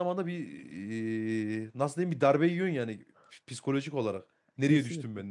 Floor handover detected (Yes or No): Yes